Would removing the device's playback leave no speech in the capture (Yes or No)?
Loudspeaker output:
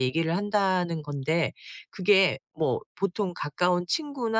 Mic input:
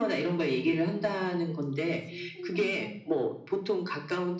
No